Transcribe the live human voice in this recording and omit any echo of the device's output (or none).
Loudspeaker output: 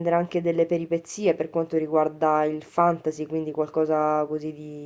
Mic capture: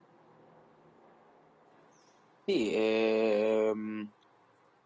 Sì, ehm,